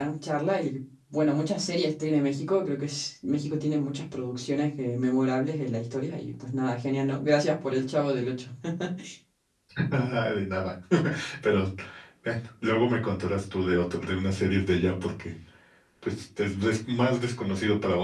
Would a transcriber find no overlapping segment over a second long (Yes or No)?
Yes